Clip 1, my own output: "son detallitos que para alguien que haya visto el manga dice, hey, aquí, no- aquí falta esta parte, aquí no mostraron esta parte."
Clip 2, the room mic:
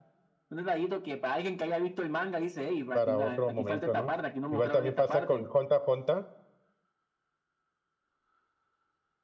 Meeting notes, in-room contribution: present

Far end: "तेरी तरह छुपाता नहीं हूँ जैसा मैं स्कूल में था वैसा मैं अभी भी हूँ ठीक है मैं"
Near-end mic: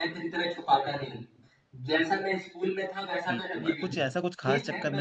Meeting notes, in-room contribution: present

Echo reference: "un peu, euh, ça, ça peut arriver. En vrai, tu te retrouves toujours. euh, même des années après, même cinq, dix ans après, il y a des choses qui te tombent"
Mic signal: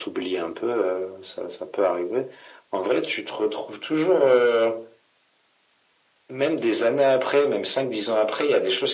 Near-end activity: none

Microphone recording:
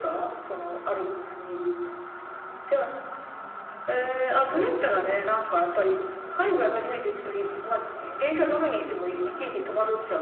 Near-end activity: present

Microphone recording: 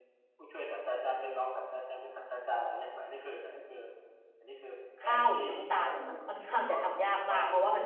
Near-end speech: present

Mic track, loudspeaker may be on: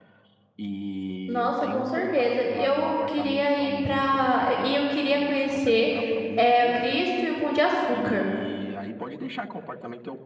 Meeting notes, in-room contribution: present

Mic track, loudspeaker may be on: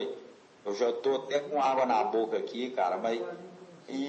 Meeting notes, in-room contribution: present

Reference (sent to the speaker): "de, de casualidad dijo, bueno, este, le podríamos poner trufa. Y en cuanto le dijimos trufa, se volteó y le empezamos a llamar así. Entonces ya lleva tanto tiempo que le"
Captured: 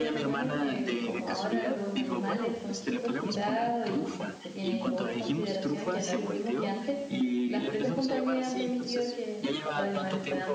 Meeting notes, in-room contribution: present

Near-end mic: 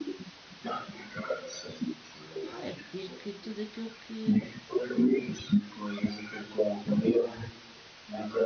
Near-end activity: present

